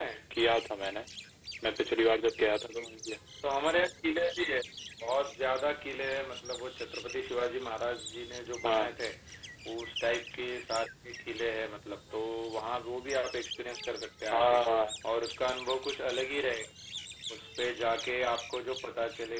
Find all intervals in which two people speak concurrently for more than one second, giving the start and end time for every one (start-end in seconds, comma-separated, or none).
none